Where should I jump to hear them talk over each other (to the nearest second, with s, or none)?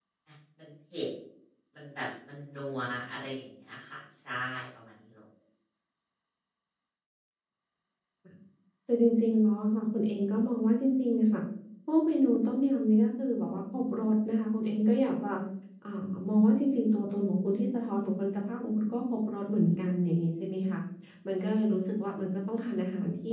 none